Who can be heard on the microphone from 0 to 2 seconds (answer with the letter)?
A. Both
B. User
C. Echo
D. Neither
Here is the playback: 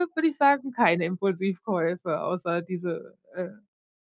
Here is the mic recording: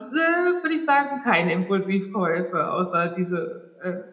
C